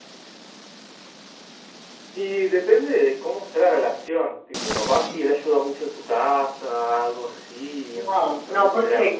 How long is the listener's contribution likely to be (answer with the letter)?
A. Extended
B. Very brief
A